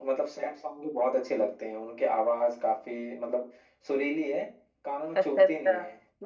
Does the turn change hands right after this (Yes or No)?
Yes